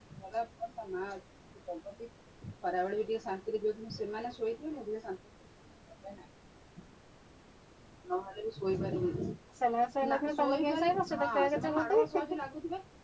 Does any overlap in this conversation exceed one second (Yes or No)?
Yes